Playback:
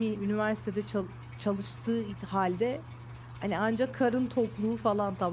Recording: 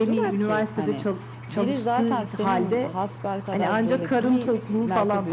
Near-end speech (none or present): present